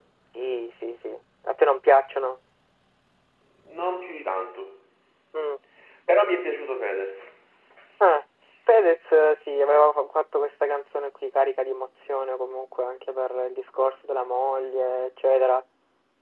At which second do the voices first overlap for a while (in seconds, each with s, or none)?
none